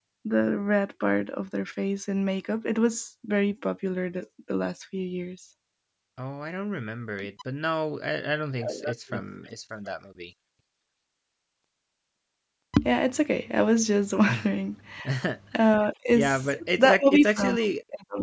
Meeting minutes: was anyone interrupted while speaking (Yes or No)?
Yes